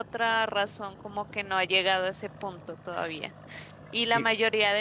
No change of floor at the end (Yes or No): Yes